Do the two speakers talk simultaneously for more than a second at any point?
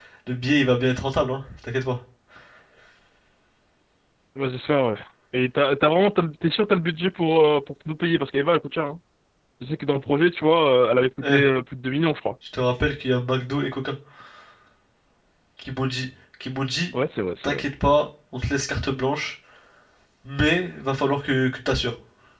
No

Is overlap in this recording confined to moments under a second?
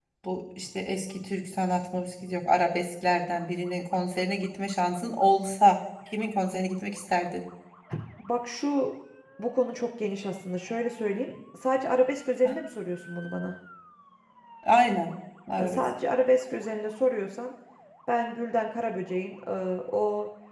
Yes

